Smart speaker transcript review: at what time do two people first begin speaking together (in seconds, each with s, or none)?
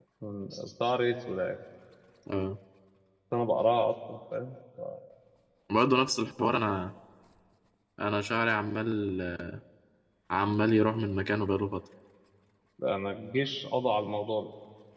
none